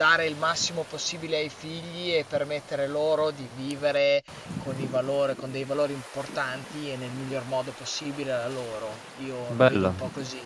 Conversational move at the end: taking over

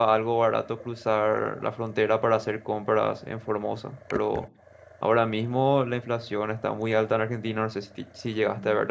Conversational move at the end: taking over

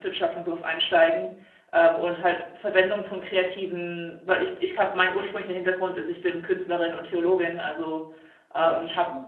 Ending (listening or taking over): listening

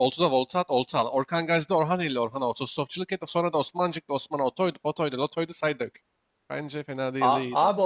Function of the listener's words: taking over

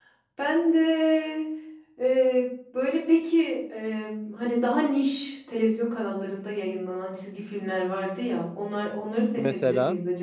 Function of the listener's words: listening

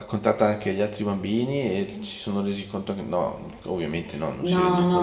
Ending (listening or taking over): taking over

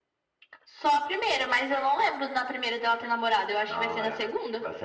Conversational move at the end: taking over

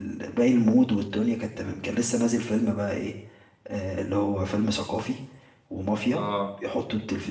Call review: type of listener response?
listening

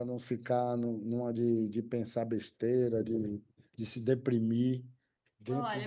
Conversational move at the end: taking over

